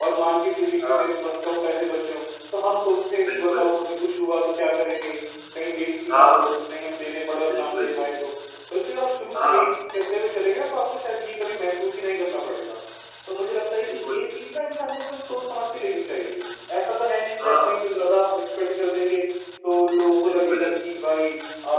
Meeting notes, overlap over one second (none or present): none